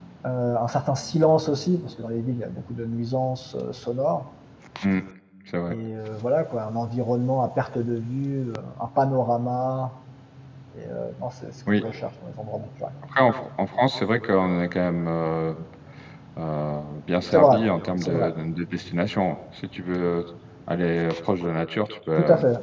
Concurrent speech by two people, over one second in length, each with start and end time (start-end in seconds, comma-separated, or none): none